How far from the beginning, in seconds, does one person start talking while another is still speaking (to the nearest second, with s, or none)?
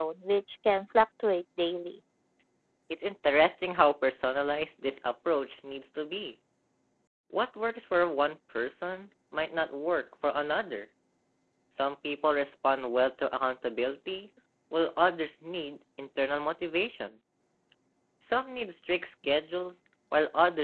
none